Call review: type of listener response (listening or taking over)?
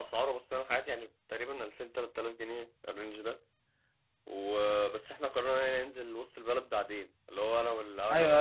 taking over